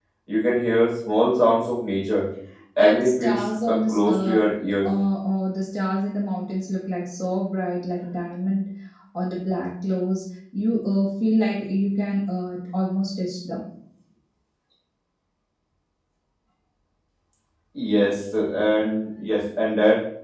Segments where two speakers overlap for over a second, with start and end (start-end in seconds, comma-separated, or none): 2.8-4.4